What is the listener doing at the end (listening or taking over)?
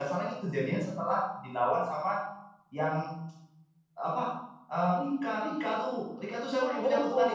taking over